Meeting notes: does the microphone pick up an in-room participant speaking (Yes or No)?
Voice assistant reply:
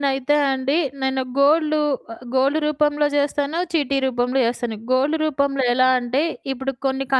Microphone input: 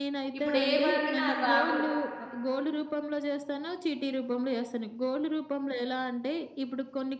Yes